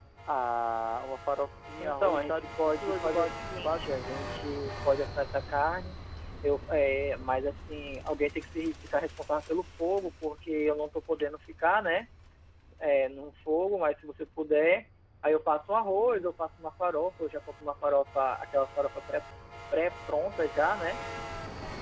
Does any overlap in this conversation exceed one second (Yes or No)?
Yes